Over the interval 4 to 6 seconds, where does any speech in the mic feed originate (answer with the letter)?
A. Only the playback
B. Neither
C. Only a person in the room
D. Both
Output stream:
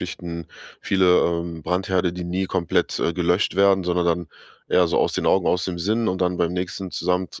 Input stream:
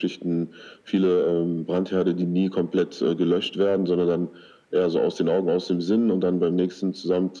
A